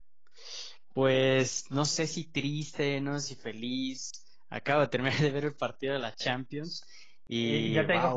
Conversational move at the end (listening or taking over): taking over